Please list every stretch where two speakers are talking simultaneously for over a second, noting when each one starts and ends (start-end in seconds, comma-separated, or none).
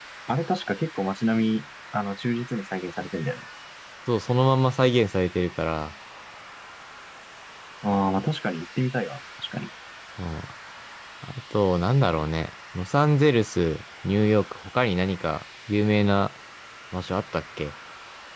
none